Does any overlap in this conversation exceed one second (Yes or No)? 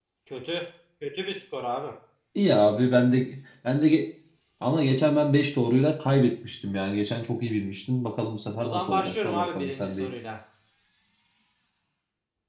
Yes